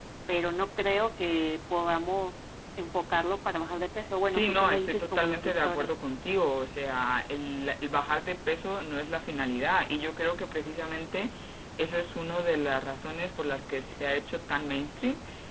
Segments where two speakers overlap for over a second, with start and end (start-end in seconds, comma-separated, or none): 4.3-5.9